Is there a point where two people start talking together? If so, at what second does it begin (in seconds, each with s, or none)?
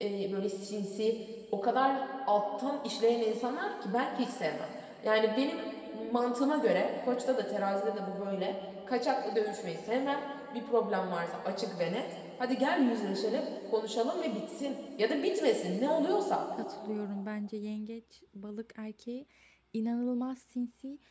none